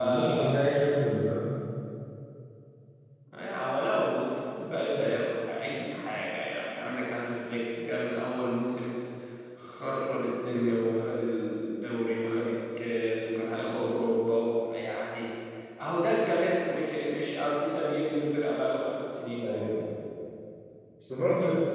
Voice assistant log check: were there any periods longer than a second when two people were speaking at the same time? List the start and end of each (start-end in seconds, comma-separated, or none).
none